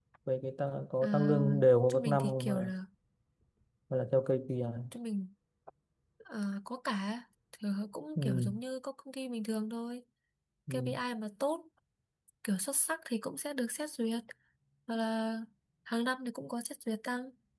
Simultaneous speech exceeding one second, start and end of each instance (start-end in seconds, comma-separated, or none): 1.0-2.7